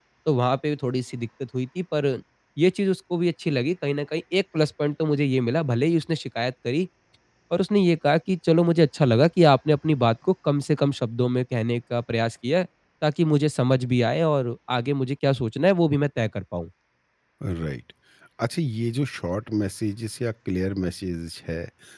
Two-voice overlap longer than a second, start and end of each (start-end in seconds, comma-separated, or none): none